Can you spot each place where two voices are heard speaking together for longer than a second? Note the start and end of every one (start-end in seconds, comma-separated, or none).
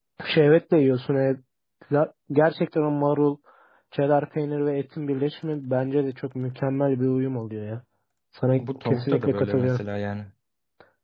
8.6-9.8